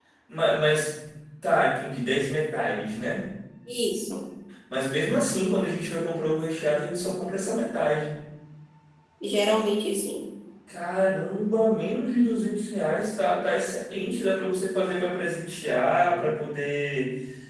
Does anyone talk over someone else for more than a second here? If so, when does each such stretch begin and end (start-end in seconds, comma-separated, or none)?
none